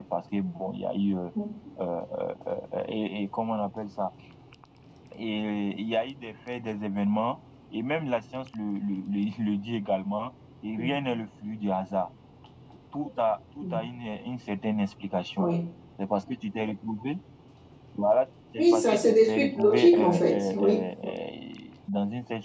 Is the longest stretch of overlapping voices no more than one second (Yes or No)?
No